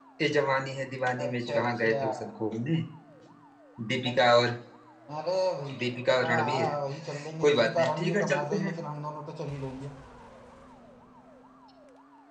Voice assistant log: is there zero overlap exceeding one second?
No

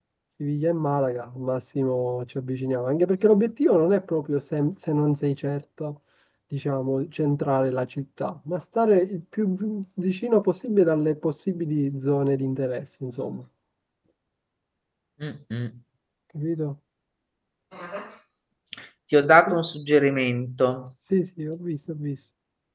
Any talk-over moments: No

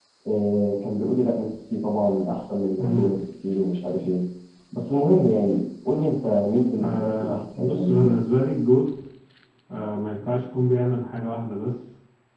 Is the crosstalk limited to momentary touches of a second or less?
No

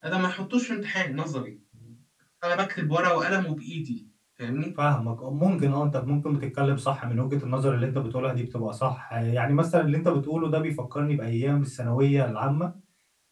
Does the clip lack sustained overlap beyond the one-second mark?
Yes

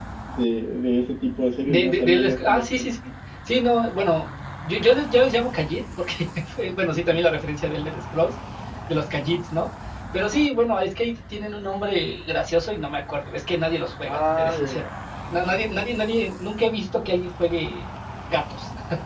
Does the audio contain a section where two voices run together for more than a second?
Yes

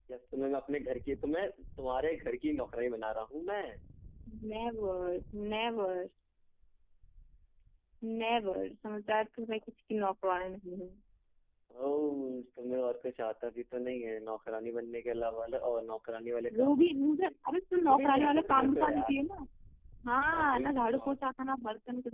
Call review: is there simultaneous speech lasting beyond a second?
Yes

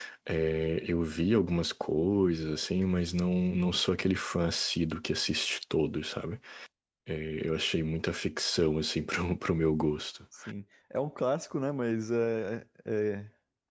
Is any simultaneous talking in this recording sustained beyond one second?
No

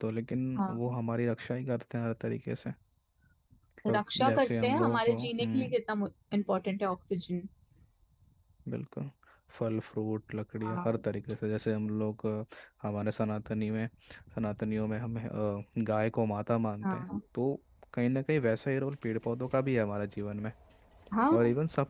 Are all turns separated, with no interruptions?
No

